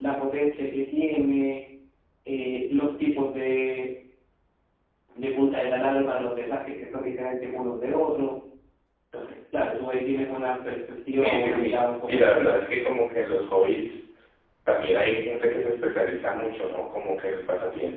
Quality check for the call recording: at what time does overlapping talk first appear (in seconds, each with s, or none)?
11.2 s